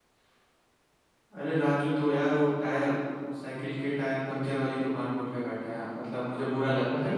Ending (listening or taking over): taking over